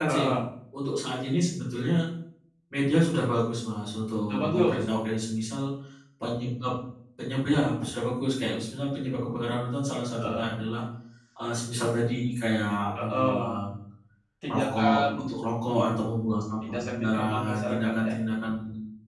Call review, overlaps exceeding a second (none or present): present